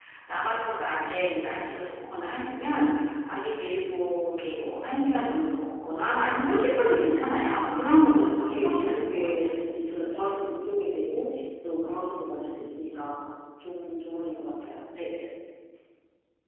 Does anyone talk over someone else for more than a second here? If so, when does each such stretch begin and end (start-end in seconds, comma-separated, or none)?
8.0-9.5